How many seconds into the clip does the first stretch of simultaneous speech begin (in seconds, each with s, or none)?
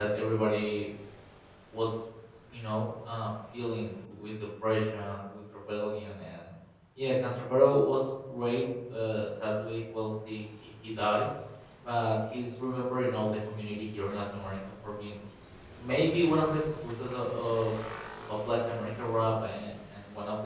none